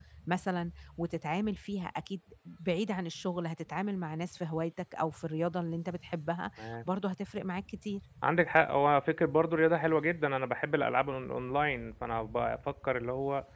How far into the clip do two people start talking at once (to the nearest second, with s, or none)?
none